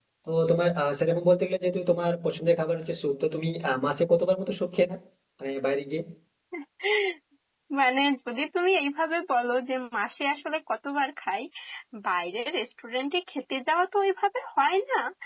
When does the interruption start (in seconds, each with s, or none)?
none